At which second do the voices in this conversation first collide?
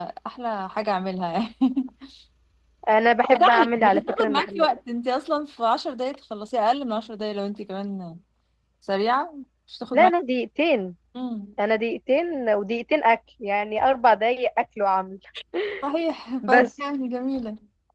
3 s

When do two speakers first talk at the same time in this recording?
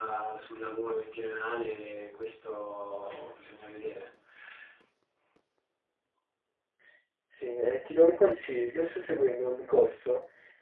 none

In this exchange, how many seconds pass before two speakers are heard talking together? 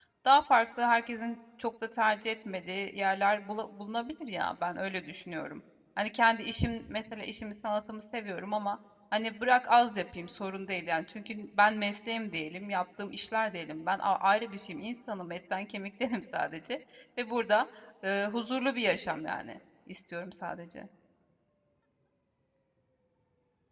none

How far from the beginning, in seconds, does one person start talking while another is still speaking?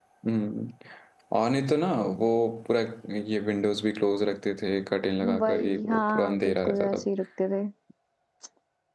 5 s

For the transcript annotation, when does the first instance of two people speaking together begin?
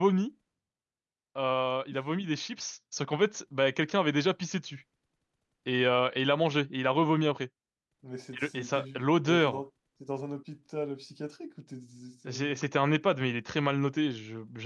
8 s

